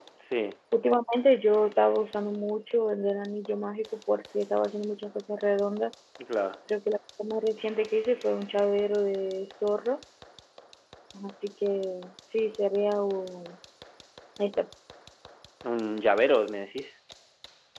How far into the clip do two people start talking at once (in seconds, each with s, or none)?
none